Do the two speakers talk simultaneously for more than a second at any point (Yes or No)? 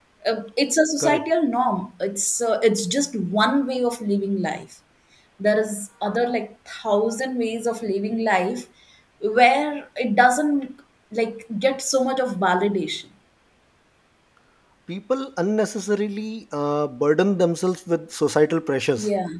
No